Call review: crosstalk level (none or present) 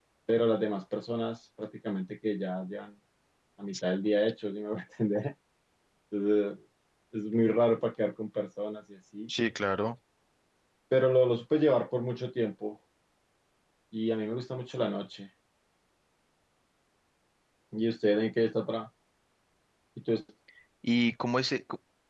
none